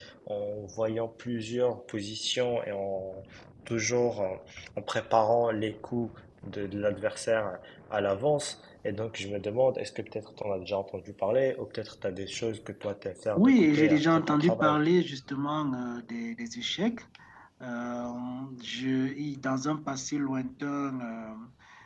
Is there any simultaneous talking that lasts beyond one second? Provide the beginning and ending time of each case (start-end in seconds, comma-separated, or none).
13.4-14.8